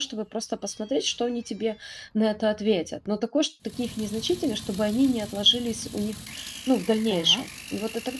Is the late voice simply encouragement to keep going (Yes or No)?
Yes